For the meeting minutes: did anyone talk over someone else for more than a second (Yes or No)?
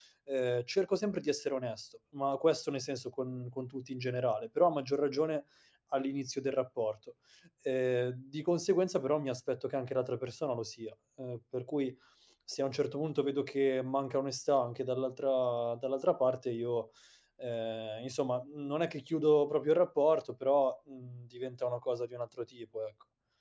No